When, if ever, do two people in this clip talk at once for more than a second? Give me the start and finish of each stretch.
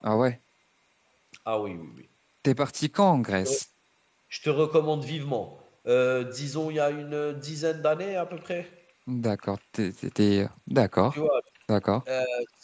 none

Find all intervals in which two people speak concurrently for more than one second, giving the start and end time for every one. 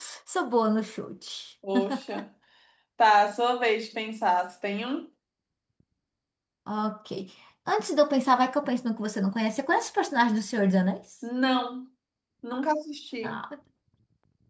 none

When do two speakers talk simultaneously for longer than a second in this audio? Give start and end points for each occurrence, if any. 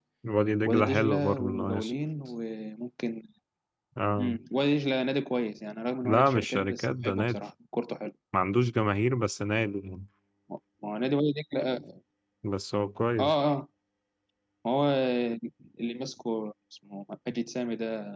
0.7-1.9, 6.0-7.4

